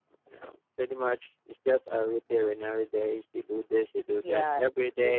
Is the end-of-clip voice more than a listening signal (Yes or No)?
Yes